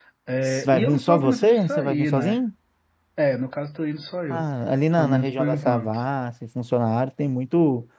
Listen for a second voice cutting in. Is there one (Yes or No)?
Yes